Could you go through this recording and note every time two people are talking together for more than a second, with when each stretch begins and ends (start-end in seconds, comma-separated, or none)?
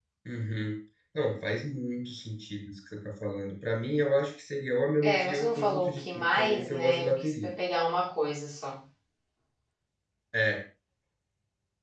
5.0-7.5